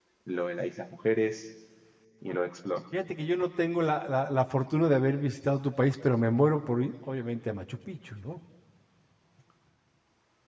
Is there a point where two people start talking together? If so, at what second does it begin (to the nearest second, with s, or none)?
none